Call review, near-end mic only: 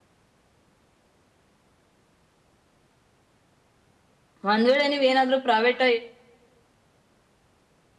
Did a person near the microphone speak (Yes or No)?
Yes